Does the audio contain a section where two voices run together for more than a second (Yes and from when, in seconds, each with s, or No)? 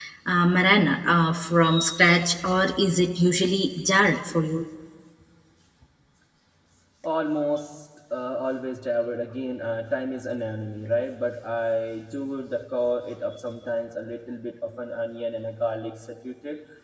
No